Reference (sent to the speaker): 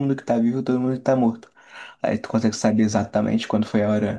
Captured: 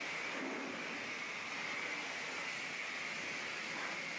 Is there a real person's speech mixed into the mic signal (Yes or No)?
No